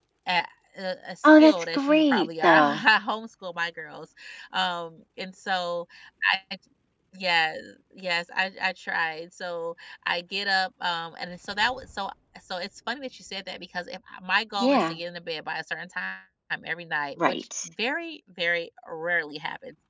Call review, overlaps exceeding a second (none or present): present